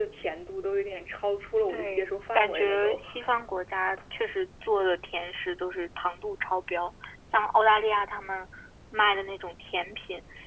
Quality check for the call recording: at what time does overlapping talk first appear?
1.7 s

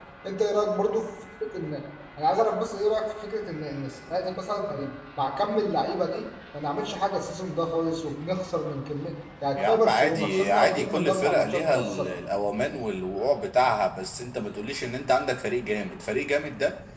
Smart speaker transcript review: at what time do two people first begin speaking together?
9.6 s

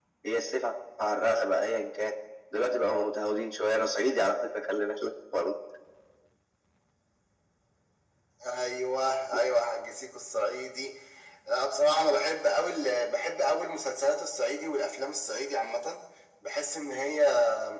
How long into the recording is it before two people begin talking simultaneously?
none

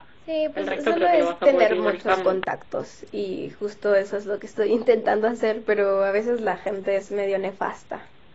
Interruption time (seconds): 0.6 s

